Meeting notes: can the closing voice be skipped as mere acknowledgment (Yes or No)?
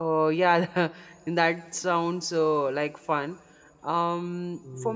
Yes